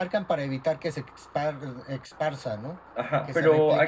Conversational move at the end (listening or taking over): taking over